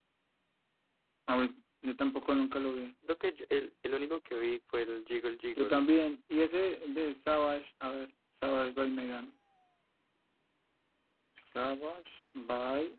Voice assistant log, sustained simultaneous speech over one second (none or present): none